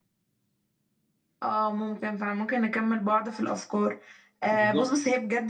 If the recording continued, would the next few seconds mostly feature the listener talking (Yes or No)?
No